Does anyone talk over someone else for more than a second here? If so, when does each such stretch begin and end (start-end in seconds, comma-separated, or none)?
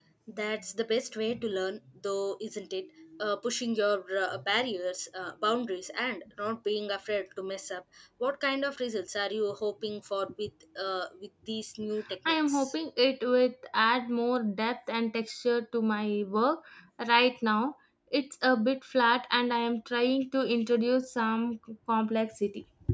none